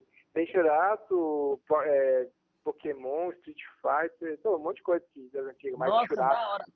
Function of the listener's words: taking over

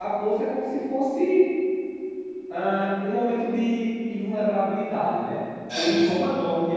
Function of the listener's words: listening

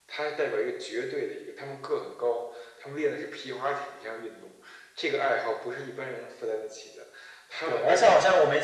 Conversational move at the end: taking over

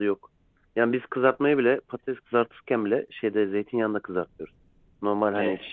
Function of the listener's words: listening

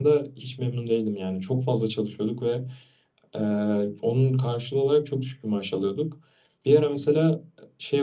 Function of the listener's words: listening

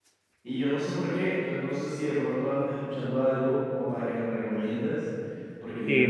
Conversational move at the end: taking over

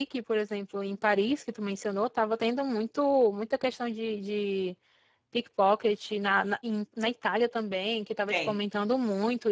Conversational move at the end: listening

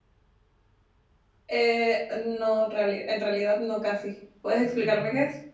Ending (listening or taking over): taking over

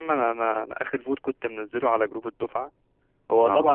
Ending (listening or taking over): listening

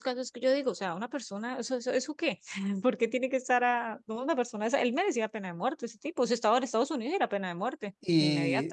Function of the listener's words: taking over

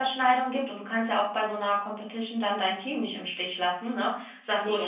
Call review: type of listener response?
listening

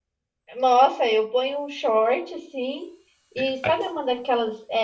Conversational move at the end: listening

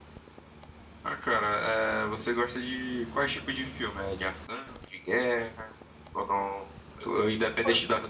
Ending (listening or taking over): listening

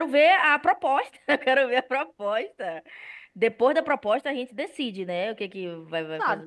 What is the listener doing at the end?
taking over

